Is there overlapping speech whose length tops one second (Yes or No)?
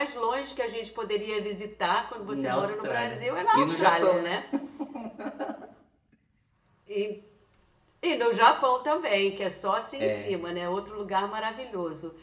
Yes